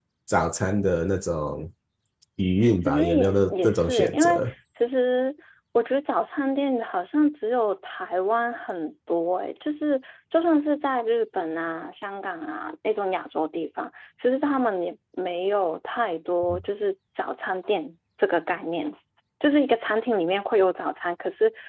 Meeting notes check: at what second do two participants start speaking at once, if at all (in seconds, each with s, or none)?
2.8 s